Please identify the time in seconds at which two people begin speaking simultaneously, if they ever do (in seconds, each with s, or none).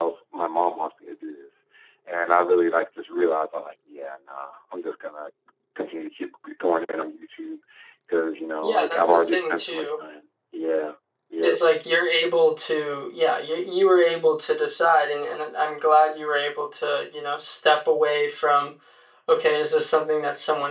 8.6 s